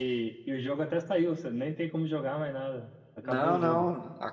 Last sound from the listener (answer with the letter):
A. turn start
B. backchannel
A